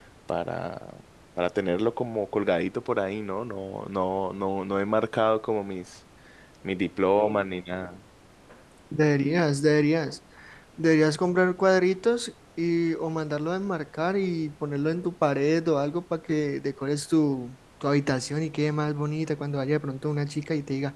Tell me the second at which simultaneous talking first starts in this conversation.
none

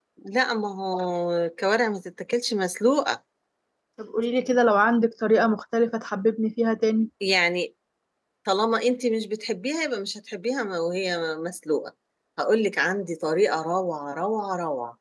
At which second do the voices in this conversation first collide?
none

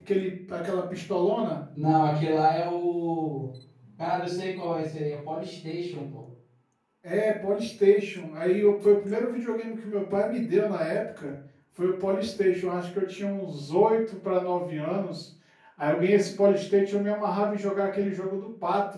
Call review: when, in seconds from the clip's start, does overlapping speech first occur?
none

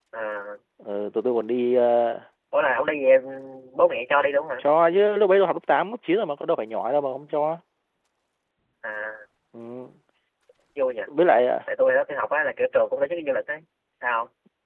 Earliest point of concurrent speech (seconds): none

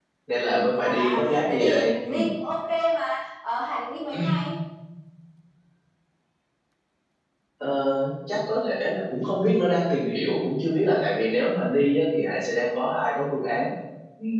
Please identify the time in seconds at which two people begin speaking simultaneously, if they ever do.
1 s

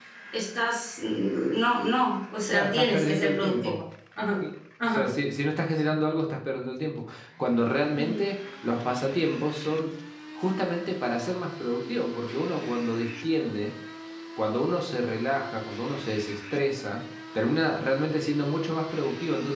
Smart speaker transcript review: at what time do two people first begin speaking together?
3 s

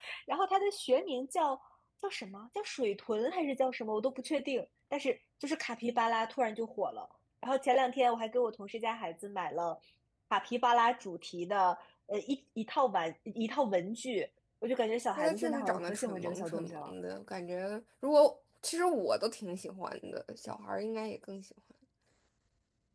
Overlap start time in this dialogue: 15 s

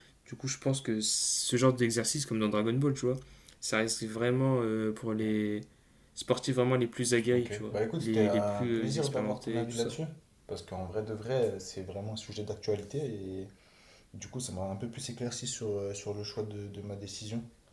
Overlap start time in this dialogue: 7 s

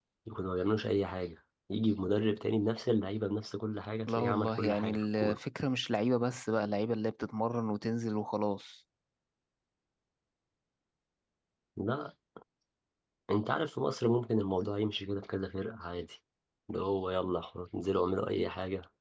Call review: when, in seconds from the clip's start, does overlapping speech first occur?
4 s

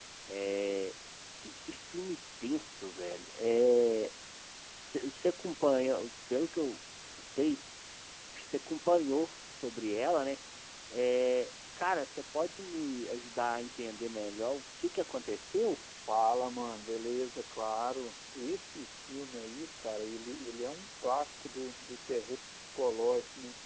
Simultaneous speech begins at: none

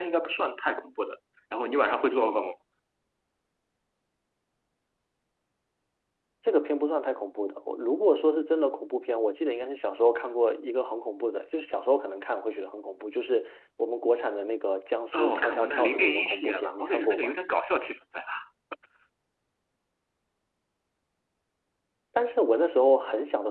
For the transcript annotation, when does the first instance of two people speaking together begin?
15 s

